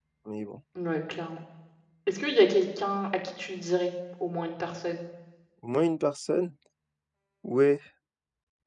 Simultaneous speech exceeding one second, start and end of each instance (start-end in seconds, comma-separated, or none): none